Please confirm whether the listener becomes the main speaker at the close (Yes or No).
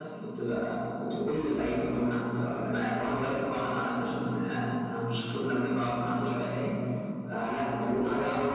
No